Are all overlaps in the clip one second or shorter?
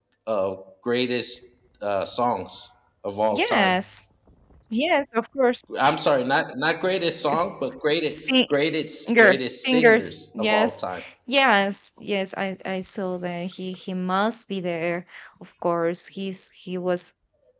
No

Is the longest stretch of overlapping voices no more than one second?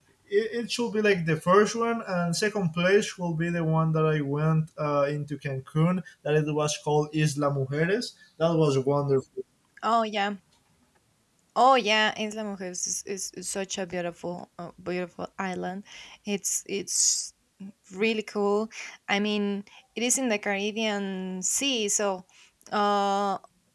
Yes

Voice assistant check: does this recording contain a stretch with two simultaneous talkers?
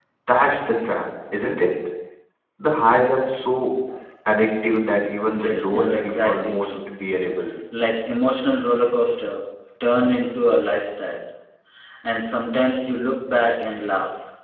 Yes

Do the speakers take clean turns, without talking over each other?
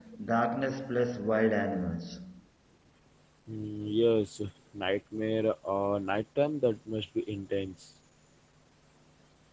Yes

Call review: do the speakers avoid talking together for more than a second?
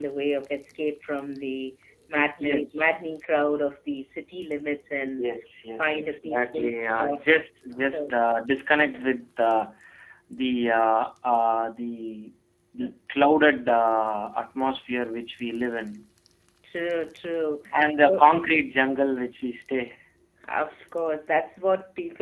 No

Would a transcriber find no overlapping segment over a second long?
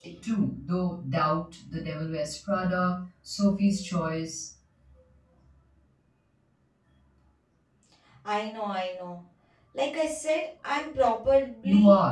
Yes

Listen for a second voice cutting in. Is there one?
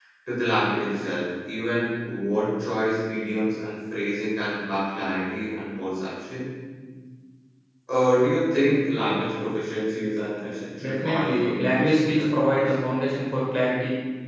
Yes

